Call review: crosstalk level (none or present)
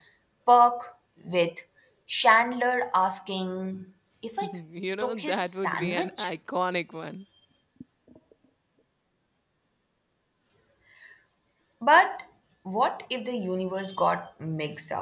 present